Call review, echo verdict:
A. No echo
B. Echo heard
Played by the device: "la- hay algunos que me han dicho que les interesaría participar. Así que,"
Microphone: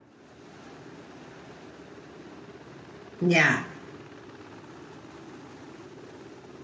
A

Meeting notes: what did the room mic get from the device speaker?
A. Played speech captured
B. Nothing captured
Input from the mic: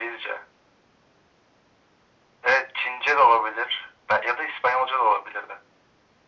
A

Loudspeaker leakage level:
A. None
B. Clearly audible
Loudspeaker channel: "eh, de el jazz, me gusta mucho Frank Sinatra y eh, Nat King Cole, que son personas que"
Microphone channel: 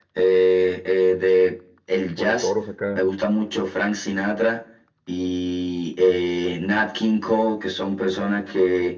B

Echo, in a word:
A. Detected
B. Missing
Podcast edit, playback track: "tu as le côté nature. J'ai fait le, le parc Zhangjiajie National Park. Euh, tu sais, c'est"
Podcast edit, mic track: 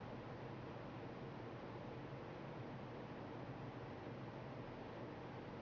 B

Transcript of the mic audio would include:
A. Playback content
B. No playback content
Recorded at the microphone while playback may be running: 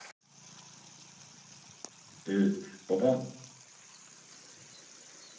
B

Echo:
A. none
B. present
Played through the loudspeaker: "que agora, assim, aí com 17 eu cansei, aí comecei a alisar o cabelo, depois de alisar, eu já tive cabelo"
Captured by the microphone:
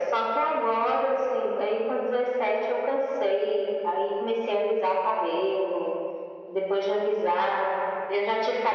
B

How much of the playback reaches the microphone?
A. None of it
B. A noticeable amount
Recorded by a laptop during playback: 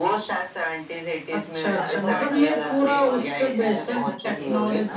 B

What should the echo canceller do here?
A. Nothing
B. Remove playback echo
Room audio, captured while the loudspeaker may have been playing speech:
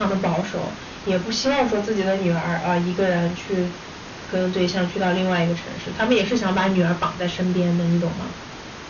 B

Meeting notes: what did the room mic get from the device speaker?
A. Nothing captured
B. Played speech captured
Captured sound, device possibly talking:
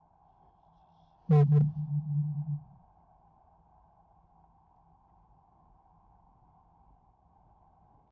A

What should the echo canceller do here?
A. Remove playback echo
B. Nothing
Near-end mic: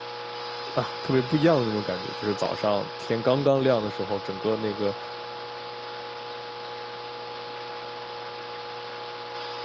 B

